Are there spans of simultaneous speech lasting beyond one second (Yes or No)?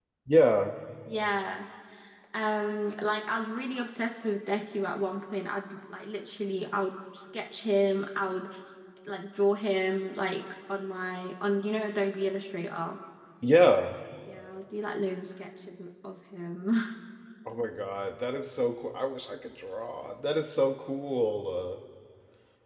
No